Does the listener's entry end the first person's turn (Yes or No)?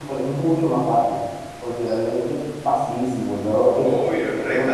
Yes